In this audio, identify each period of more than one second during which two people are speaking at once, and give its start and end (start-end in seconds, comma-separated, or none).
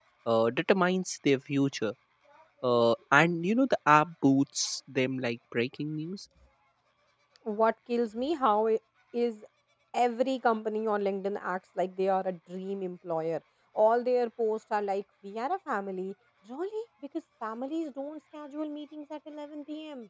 none